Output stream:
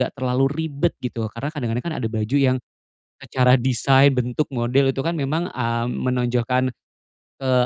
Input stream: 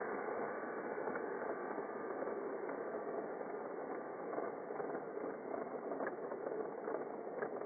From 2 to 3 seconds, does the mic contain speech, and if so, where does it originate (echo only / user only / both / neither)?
neither